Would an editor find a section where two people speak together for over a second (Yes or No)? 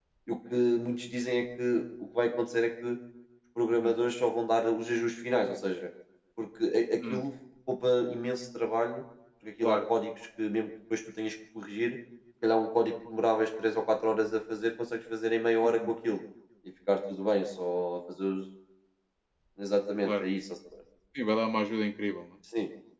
No